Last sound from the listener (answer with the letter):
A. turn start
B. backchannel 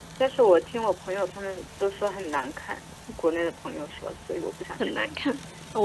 A